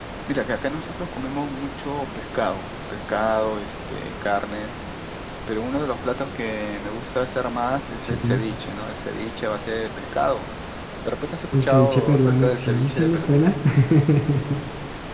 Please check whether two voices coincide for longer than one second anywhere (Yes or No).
Yes